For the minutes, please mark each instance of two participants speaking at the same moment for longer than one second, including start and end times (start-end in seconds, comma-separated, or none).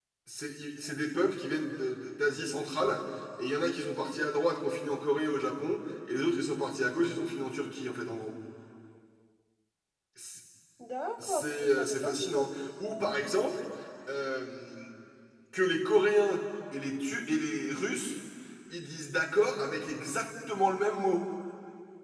11.2-12.5